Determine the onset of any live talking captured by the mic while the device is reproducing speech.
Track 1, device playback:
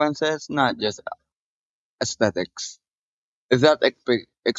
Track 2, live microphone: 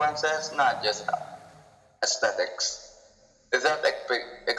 none

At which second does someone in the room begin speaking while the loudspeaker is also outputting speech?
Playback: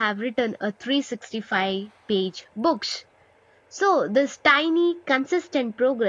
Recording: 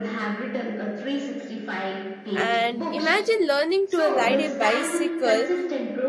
2.3 s

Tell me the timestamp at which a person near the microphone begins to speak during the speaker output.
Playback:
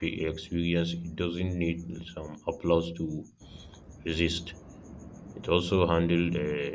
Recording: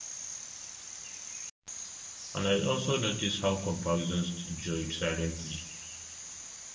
2.3 s

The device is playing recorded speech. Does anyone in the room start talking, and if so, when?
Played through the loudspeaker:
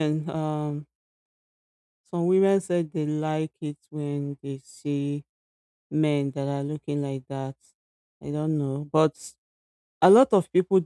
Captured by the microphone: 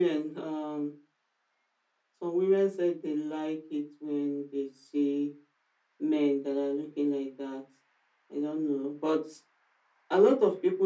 none

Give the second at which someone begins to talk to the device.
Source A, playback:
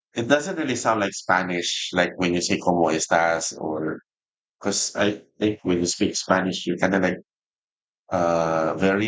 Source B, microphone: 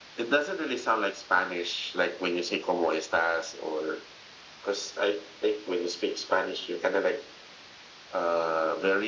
none

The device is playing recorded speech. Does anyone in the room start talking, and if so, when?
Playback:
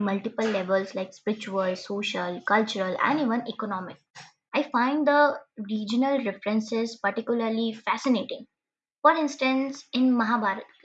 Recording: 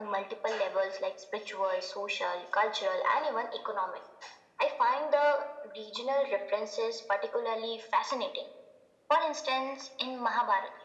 none

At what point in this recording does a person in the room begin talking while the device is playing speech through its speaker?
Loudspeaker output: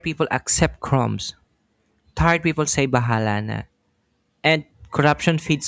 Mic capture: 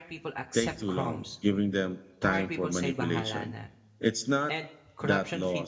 0.5 s

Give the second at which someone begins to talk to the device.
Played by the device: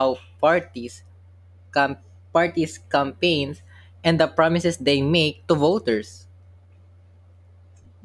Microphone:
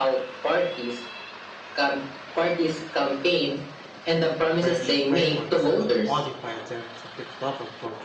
4.5 s

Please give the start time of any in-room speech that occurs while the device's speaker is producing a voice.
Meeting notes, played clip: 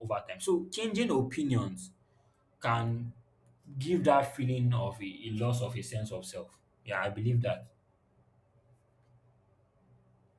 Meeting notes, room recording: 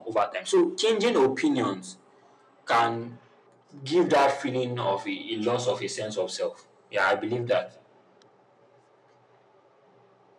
none

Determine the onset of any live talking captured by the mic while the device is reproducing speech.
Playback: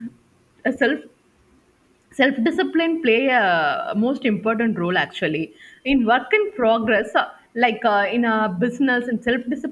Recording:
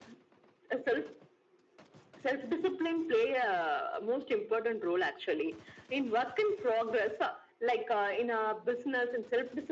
none

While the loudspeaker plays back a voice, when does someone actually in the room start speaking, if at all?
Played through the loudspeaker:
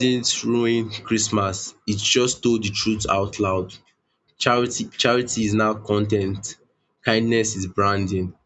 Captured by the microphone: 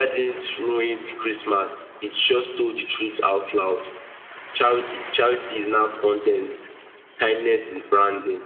none

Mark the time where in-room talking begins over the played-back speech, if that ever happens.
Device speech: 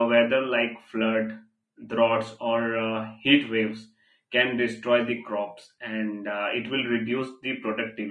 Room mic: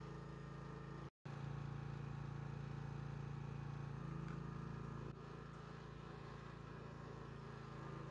none

